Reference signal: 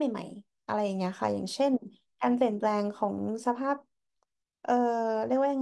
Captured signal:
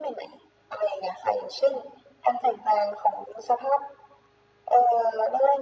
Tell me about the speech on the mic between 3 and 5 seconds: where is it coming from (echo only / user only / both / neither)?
echo only